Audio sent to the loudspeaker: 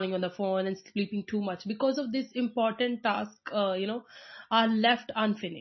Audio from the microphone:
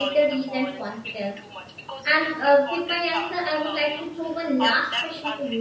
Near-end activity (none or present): present